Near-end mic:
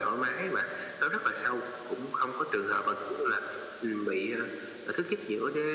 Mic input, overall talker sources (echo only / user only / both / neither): echo only